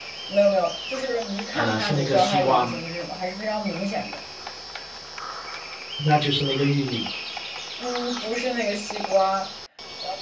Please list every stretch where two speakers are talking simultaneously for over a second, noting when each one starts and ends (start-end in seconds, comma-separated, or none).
1.5-2.7